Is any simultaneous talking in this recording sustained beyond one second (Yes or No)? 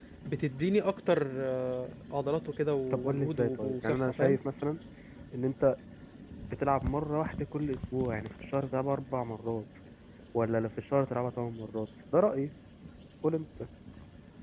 Yes